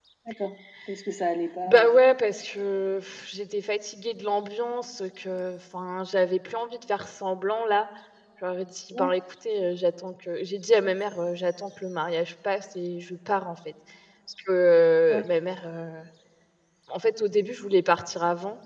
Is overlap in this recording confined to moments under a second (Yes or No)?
Yes